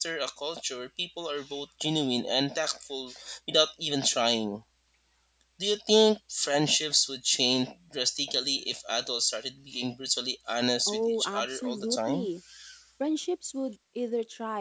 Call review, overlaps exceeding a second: present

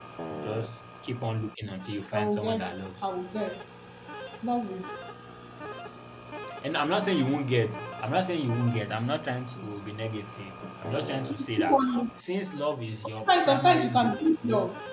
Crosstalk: present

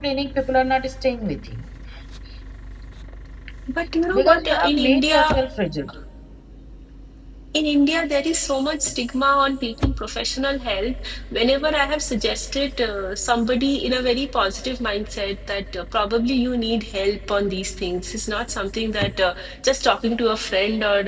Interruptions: present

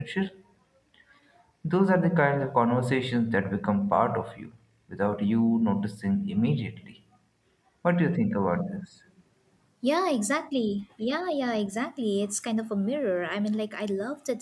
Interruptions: none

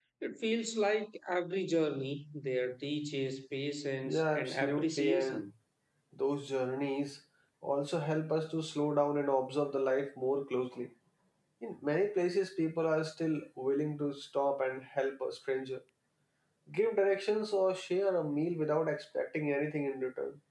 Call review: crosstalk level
present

